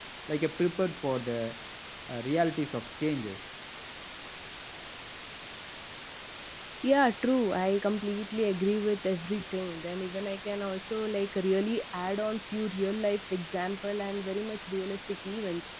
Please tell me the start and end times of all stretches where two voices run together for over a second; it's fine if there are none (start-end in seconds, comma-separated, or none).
none